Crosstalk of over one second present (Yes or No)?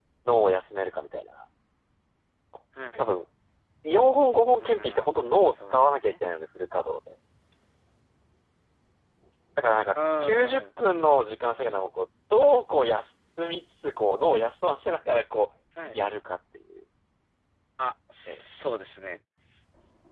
Yes